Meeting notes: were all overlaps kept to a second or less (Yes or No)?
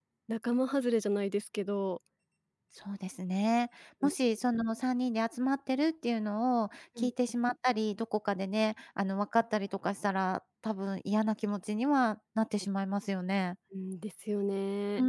Yes